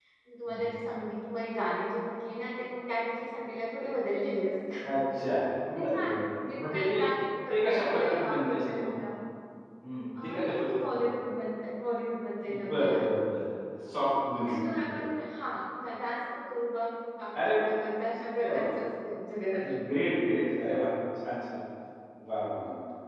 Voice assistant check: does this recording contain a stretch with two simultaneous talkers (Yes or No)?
Yes